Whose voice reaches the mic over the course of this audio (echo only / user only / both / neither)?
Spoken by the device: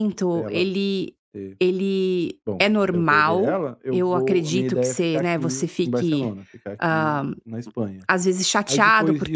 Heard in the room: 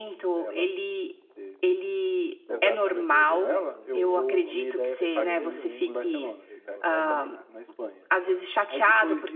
both